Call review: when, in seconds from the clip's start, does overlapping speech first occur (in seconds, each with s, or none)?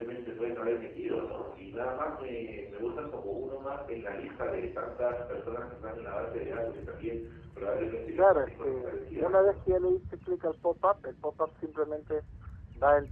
8.2 s